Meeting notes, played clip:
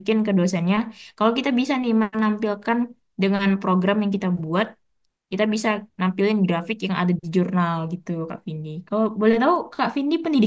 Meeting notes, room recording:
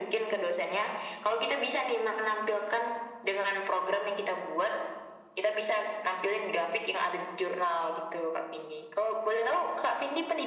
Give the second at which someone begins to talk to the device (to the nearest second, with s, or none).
none